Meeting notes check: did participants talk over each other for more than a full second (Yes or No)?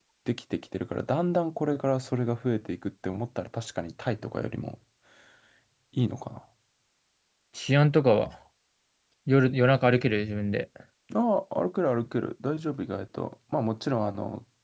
No